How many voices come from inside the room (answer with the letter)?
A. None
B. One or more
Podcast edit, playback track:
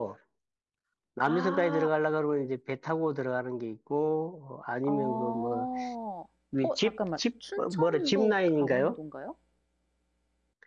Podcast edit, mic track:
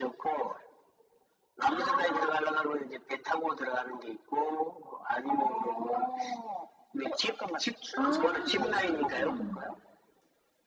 B